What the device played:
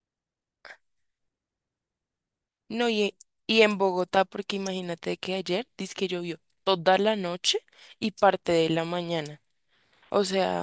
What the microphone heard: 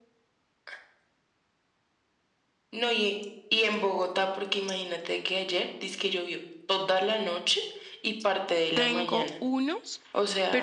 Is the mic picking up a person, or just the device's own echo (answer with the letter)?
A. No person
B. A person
B